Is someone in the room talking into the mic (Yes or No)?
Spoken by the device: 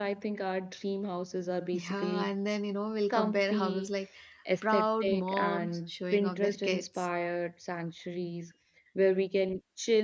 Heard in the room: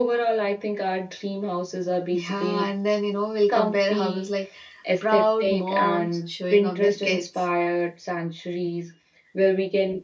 No